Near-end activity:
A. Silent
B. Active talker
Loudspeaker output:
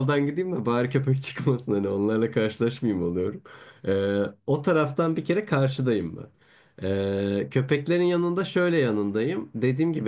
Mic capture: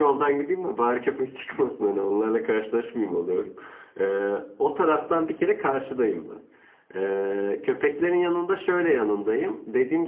A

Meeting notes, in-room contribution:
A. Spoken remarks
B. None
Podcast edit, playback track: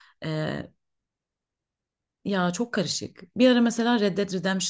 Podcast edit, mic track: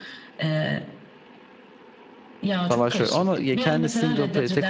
A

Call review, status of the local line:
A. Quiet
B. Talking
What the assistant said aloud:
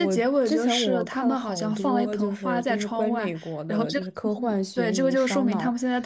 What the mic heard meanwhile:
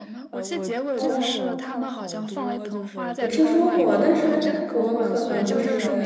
B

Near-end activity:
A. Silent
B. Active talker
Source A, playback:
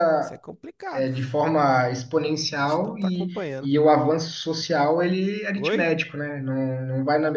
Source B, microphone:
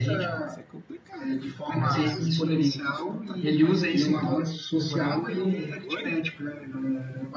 B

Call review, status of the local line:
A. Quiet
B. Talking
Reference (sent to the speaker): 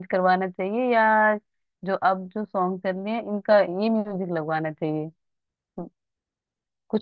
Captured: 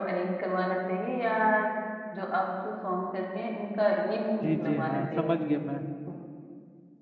B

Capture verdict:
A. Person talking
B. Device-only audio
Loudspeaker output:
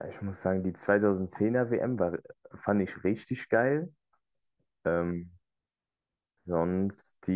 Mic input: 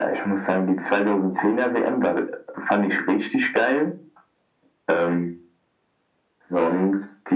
B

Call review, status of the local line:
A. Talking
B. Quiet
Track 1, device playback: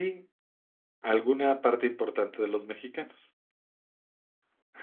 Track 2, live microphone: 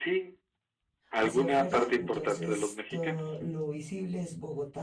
A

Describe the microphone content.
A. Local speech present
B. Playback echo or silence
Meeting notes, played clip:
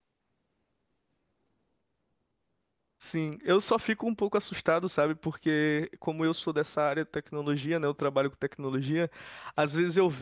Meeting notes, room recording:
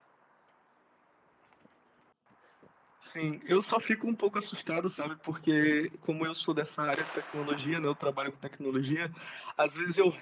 B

